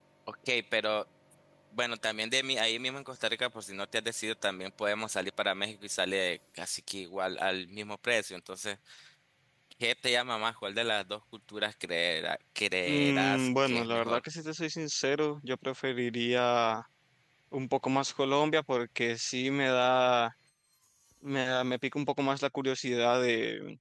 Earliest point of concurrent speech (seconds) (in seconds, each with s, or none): 12.9 s